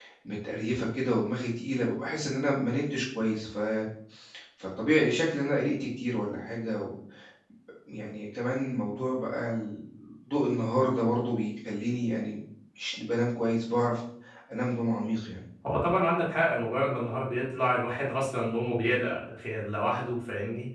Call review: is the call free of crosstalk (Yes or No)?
Yes